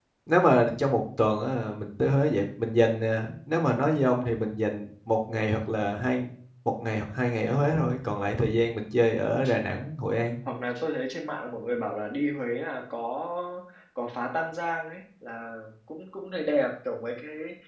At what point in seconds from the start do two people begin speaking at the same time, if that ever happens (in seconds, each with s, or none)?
none